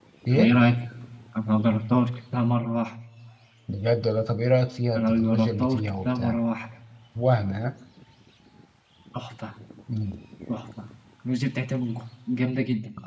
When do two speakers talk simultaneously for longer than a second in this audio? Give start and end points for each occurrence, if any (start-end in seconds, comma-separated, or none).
5.0-6.4